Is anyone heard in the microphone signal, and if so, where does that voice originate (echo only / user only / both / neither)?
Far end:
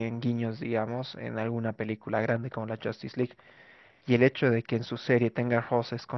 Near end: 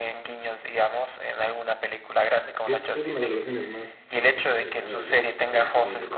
both